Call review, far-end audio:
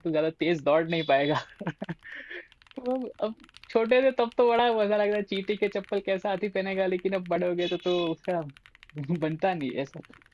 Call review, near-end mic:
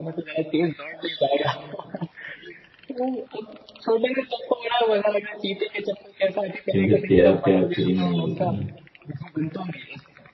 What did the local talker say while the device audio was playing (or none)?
क्योंकि तेरा प्यार फ्री में नहीं मिलता ना